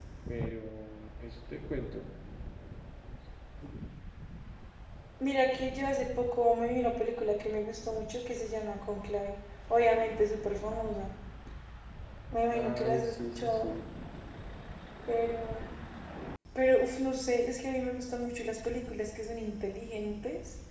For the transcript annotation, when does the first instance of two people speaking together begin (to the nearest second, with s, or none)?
13 s